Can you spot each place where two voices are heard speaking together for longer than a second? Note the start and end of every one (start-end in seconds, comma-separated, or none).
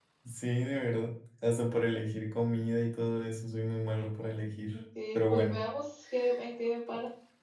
none